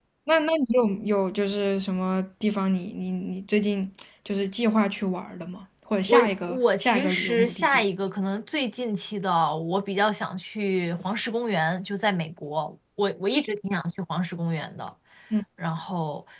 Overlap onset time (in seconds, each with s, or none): 6.1 s